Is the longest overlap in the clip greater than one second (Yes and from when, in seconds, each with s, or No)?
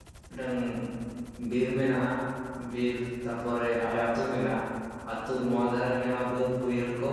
No